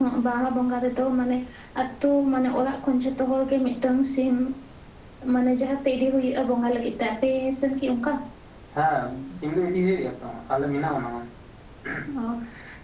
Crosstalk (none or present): none